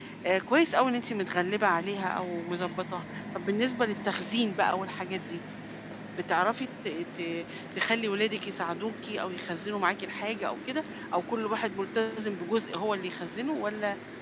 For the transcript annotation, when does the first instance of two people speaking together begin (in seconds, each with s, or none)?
none